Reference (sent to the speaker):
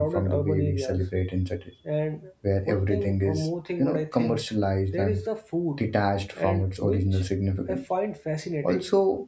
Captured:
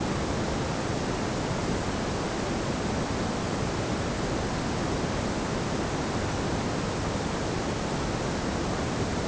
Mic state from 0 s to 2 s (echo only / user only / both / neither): neither